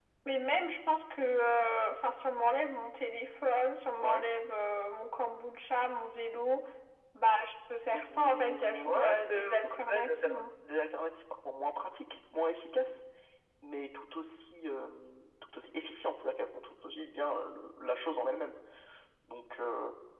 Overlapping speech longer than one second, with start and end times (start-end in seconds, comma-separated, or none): 7.9-10.4